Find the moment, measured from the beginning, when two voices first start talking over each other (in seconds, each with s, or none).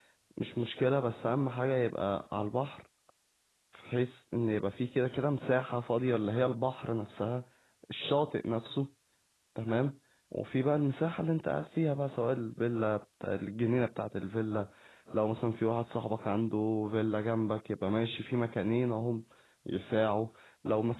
none